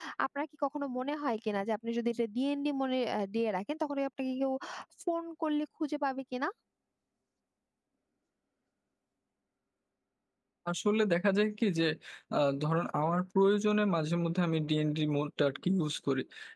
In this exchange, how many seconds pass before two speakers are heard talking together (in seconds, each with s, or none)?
none